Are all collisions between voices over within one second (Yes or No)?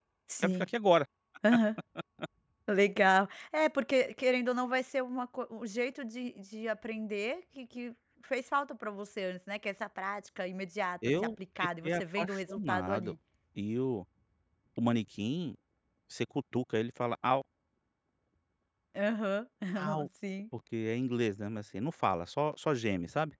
No